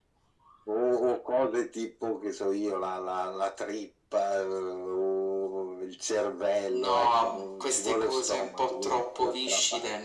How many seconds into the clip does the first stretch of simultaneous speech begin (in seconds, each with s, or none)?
6.7 s